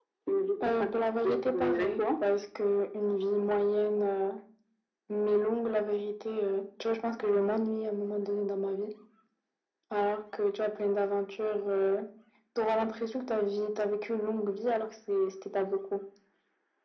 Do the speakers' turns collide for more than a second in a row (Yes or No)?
Yes